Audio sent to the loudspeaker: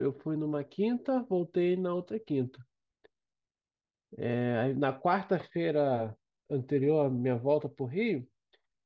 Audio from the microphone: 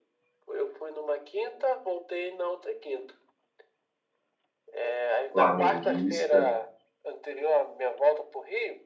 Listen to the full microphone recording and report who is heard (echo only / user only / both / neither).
both